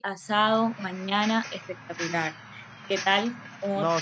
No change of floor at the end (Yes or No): No